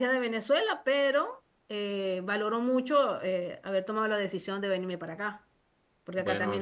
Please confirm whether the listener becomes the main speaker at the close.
No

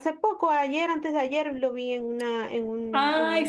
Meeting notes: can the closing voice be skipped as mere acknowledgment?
No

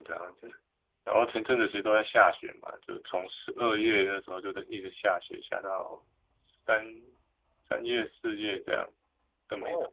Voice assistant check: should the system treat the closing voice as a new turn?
Yes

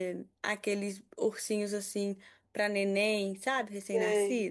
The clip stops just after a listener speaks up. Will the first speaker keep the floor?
No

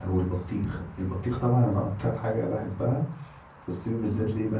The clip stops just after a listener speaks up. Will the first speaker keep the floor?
Yes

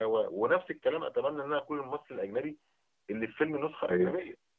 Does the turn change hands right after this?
No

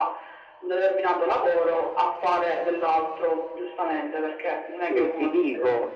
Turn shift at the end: Yes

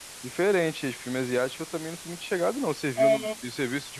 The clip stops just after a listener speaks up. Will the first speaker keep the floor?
Yes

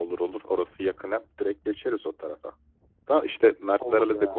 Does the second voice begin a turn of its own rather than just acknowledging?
No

